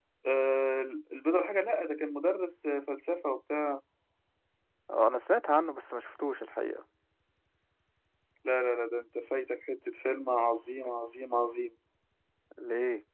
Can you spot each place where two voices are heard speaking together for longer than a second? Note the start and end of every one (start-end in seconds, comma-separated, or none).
none